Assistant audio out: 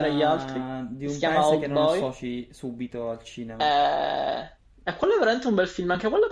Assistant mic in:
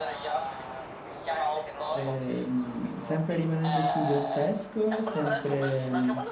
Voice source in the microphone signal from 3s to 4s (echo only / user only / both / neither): both